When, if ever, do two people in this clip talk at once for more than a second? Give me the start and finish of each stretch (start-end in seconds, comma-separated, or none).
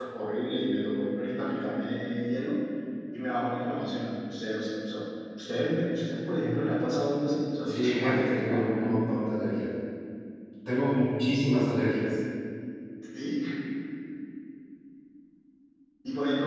7.7-9.2